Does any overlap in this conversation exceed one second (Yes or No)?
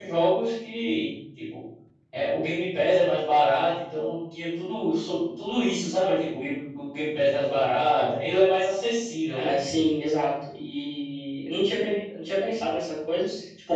No